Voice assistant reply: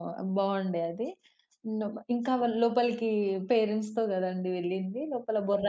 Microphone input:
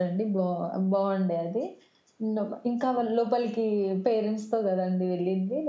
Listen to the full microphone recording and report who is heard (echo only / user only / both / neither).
echo only